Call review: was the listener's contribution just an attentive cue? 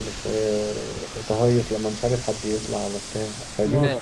No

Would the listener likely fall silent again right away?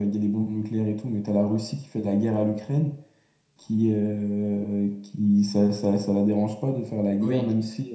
Yes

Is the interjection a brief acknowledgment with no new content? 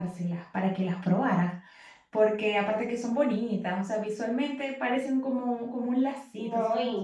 No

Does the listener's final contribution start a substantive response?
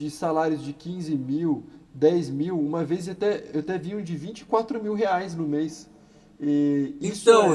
No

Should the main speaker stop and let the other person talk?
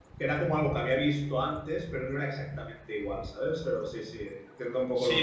Yes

